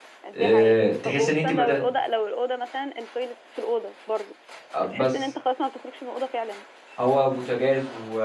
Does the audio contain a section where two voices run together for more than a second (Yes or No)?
Yes